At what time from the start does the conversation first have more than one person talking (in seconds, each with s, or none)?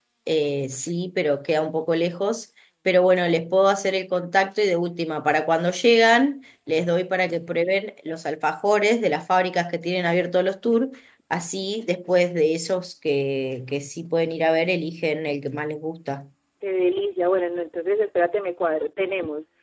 none